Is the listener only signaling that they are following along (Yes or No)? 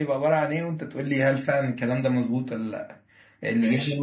Yes